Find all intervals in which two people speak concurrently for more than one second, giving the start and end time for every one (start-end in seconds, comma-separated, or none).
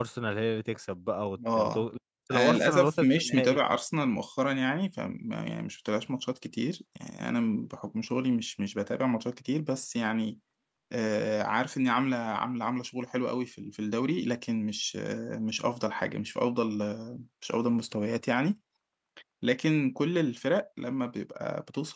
2.3-3.6